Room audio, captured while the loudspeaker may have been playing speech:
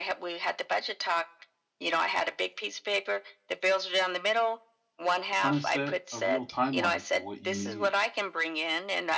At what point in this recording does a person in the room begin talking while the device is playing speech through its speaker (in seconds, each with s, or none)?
5.4 s